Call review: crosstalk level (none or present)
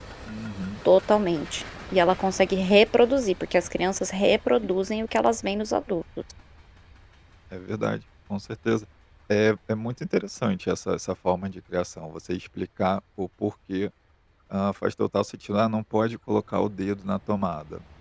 none